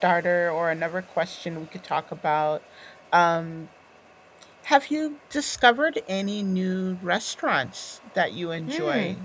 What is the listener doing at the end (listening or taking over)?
taking over